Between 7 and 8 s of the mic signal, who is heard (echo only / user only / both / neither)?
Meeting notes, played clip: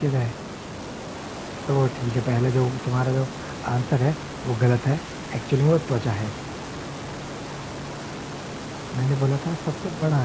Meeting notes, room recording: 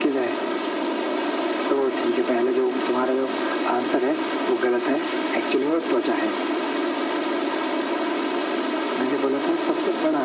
neither